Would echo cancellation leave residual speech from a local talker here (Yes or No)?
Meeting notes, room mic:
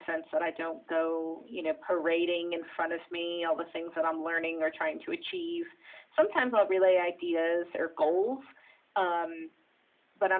No